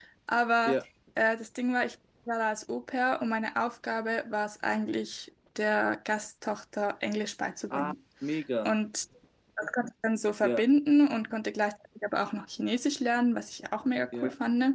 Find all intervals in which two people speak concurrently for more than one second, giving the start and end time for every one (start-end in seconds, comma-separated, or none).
none